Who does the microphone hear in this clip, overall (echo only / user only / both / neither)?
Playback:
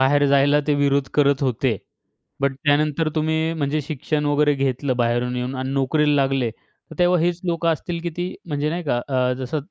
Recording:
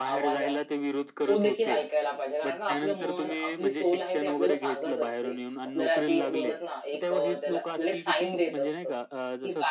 both